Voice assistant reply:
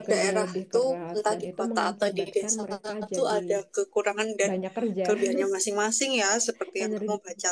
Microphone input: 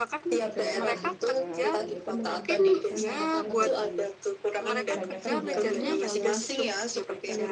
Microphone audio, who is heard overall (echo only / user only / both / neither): both